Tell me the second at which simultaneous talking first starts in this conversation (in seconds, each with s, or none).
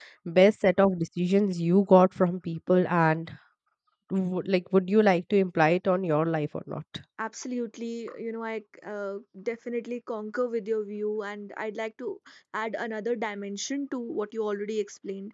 none